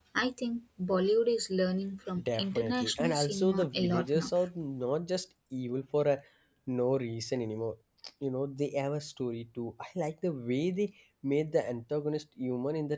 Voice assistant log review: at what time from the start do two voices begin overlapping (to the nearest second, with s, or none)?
2 s